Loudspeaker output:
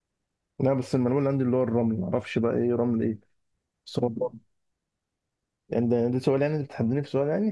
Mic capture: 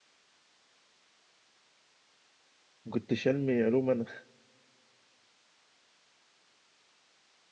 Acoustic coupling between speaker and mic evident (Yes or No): No